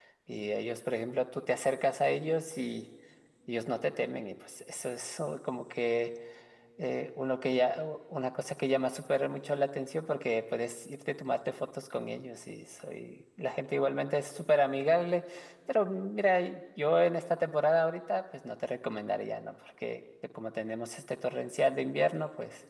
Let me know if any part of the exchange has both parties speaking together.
No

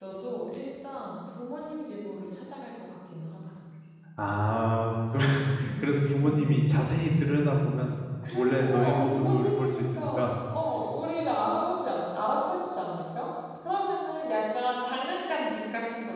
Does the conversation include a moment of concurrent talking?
Yes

